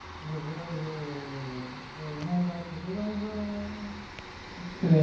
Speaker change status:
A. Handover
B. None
A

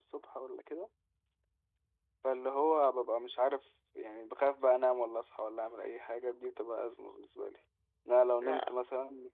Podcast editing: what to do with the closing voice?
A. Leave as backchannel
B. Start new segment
A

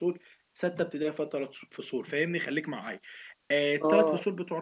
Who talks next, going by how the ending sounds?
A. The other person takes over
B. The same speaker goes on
B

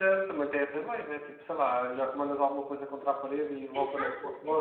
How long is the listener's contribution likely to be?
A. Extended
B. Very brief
A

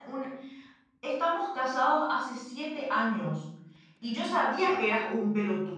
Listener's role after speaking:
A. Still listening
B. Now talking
A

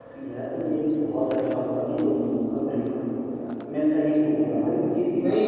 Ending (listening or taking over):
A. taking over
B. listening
A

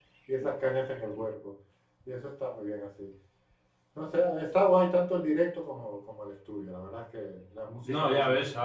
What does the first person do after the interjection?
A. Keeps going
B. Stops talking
B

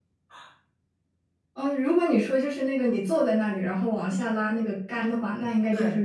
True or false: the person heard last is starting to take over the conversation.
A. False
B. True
A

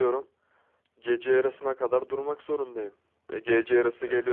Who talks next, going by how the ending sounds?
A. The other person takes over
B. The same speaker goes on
B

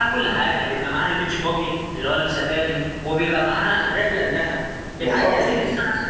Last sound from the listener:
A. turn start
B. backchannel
B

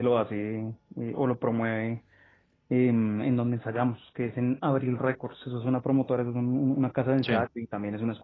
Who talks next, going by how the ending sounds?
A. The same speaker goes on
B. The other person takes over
A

